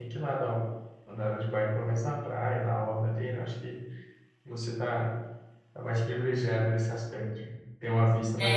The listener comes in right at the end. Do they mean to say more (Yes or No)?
Yes